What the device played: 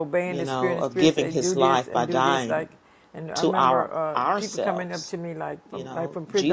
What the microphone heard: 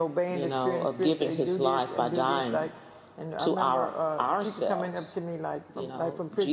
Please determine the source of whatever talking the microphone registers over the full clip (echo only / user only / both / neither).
echo only